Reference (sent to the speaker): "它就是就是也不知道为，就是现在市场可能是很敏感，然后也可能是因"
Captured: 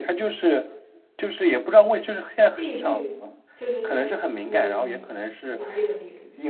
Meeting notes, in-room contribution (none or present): present